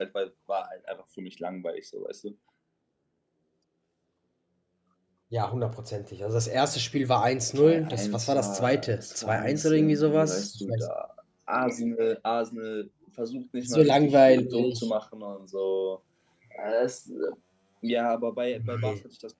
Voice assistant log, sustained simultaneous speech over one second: present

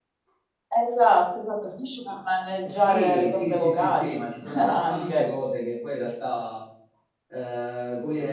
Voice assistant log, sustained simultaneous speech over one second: present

